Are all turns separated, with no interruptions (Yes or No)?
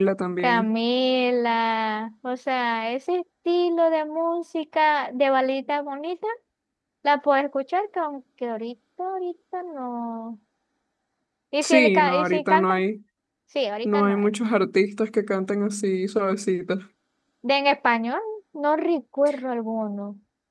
No